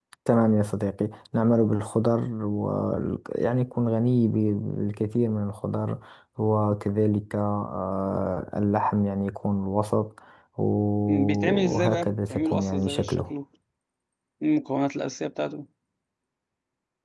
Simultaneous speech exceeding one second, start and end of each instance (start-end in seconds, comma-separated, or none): 11.1-13.3